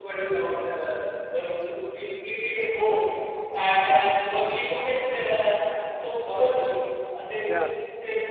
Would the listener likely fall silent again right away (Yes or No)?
Yes